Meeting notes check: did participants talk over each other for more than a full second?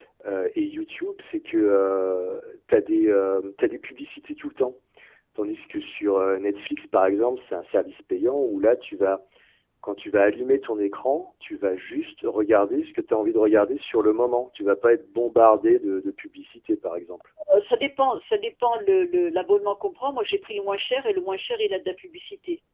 No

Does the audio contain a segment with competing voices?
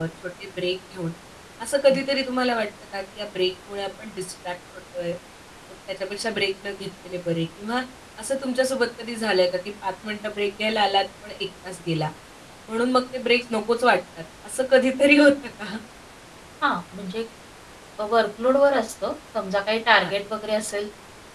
No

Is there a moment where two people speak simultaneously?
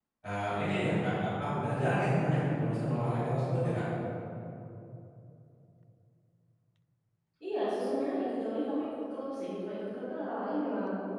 No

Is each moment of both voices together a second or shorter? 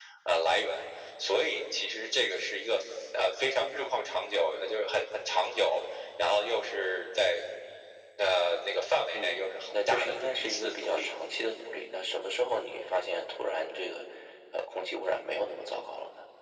No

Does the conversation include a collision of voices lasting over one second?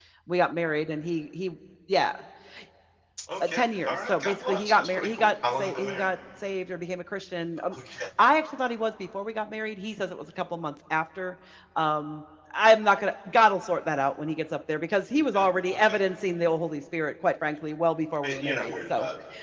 Yes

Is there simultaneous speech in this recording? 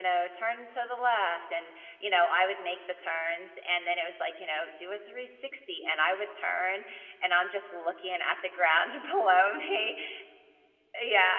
No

